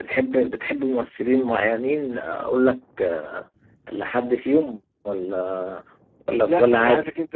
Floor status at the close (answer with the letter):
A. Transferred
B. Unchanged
A